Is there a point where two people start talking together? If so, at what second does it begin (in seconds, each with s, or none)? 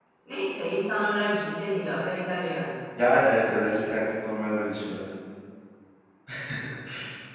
none